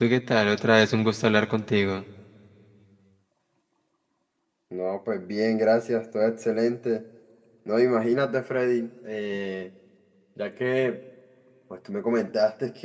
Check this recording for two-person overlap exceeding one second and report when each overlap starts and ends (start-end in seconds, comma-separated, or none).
none